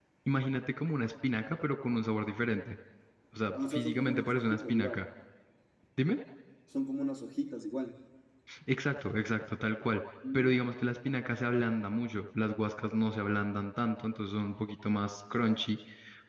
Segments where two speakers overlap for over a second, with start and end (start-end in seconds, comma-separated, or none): 3.5-5.0